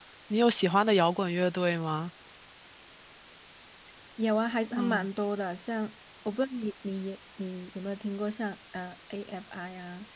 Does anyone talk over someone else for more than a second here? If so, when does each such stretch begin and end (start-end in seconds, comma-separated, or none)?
none